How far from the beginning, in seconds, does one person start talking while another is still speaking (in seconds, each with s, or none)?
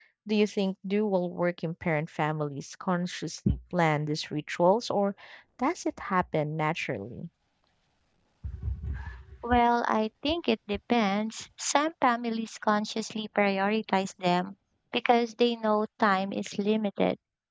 none